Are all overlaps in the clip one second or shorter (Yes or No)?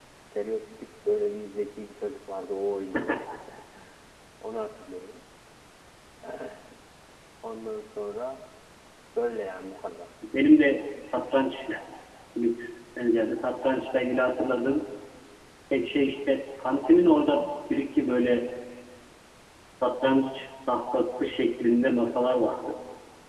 Yes